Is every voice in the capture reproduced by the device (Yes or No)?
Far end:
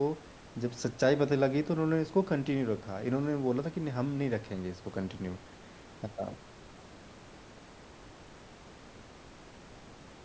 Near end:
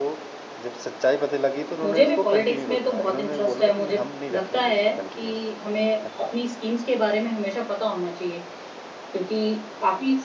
No